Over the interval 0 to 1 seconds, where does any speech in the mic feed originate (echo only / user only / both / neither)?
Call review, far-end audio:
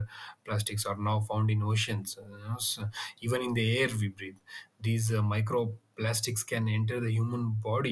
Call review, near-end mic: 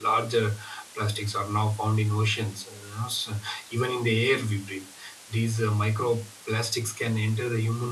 echo only